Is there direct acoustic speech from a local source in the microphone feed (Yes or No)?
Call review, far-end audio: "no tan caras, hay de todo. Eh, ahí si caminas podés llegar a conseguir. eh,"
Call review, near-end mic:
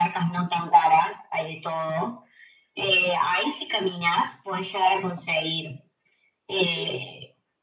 No